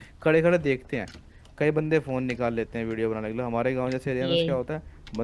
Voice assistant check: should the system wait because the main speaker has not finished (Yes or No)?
Yes